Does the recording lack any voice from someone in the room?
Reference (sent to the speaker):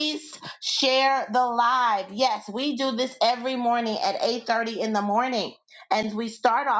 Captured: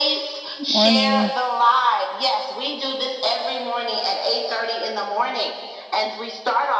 No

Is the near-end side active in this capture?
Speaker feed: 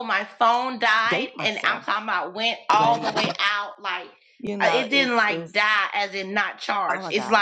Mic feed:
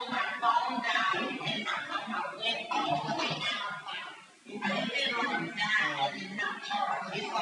Yes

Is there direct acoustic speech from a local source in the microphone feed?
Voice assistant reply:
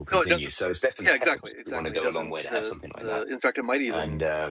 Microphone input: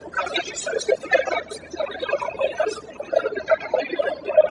No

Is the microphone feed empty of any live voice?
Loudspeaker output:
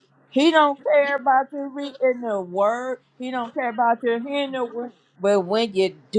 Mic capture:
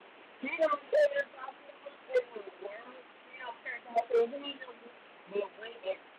Yes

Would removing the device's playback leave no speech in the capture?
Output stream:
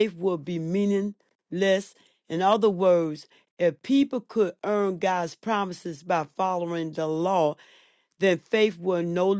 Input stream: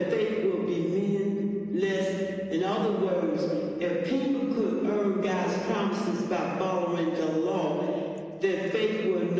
Yes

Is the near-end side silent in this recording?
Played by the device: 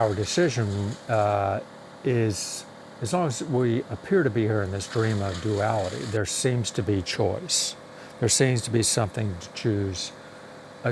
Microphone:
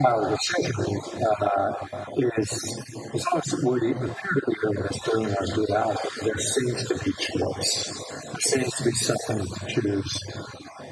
Yes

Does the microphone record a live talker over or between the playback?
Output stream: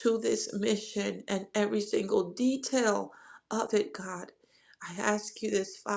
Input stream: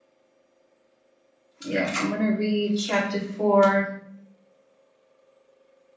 Yes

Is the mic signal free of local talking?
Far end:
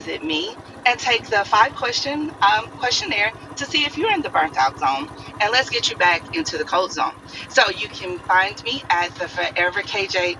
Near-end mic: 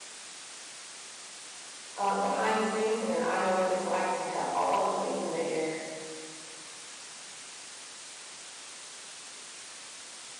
No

